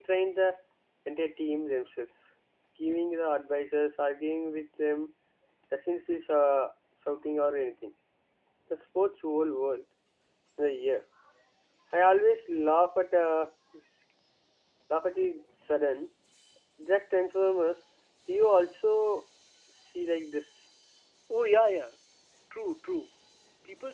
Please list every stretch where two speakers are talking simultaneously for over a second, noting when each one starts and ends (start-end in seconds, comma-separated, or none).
none